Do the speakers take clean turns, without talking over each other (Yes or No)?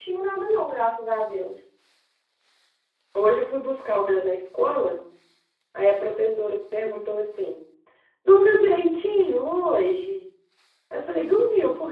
Yes